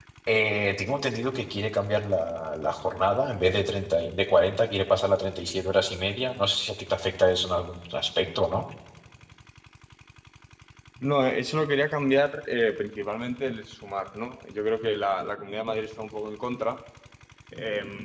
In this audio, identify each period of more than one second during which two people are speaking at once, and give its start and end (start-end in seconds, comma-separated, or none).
none